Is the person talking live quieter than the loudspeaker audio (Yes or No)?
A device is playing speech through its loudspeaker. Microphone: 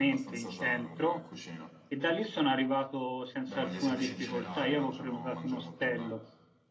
No